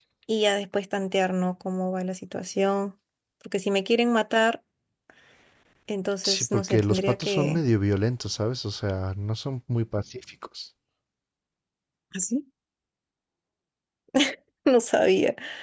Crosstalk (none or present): present